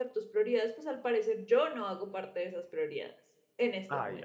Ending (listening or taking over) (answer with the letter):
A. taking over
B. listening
A